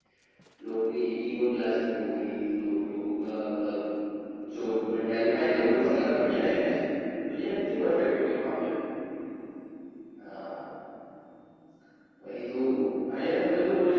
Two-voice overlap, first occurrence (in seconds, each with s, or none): 5.3 s